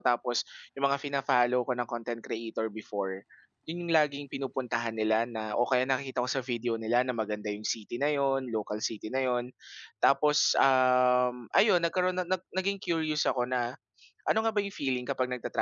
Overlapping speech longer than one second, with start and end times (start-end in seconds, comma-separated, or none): none